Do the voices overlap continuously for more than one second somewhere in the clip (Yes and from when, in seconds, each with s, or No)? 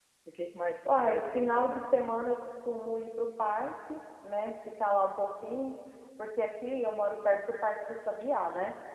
Yes, from 0.8 s